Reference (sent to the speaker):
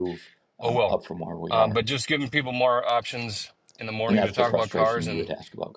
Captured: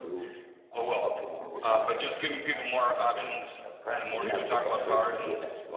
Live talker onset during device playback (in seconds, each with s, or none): 1.5 s